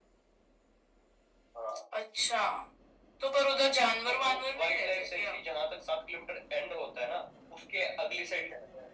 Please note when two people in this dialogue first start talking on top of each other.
4.1 s

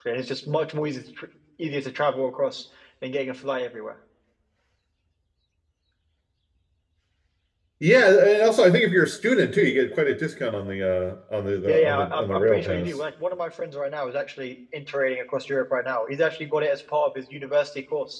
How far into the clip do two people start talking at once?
11.7 s

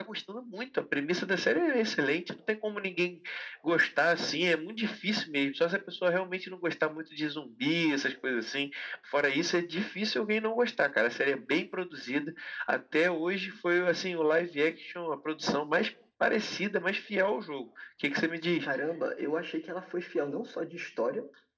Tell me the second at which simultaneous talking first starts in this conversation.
none

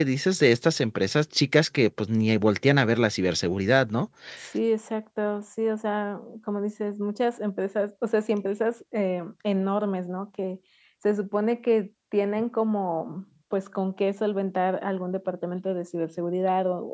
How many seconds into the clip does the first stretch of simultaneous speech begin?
none

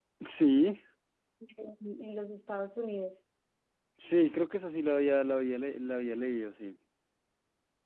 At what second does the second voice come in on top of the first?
none

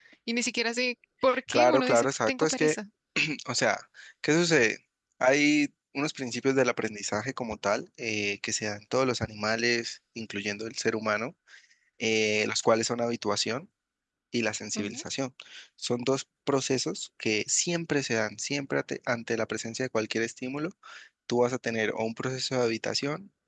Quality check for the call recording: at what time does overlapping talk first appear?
1.5 s

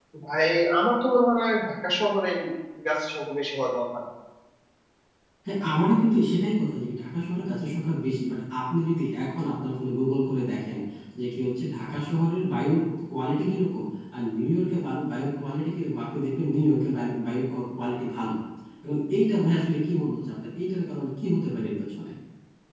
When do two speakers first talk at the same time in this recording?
none

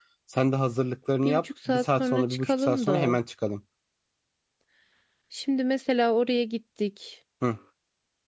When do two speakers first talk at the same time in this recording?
1.2 s

